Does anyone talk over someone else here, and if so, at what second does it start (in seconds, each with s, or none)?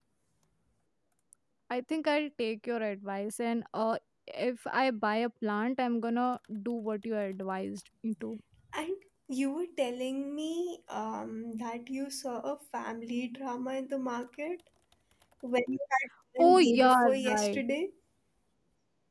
16.4 s